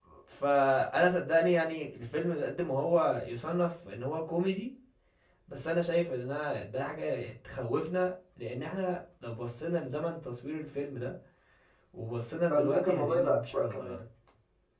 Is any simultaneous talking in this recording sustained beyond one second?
Yes, from 12.5 s

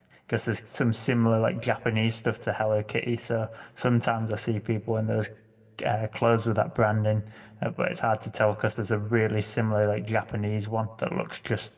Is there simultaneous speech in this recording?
No

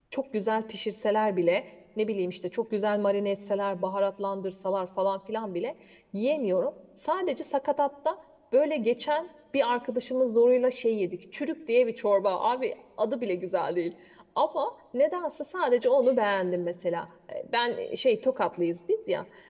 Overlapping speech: No

